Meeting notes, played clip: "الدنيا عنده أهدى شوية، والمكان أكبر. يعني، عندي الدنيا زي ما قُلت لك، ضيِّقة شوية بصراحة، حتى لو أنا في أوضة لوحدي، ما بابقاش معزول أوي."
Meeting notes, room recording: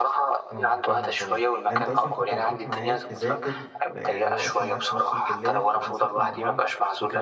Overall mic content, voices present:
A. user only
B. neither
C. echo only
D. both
D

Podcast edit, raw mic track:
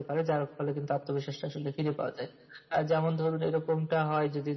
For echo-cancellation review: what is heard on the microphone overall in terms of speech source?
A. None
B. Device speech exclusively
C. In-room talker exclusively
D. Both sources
B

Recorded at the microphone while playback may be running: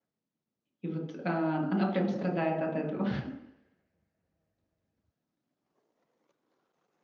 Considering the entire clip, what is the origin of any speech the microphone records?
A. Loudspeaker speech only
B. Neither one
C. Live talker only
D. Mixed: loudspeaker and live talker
C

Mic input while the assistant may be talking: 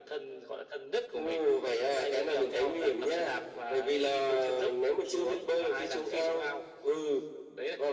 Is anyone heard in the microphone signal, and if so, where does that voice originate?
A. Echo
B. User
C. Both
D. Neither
A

